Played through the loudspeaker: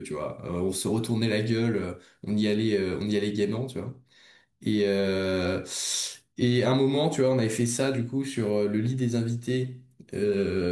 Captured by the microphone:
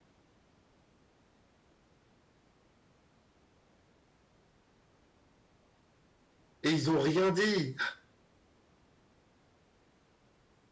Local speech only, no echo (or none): Et ils ont rien dit.